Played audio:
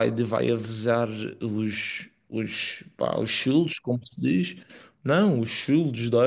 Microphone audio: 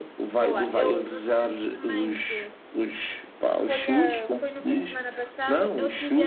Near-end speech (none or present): present